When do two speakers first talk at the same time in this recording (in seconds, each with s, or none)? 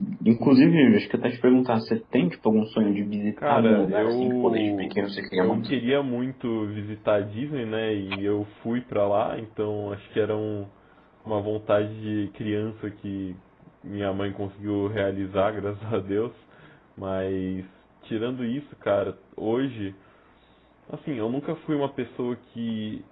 3.4 s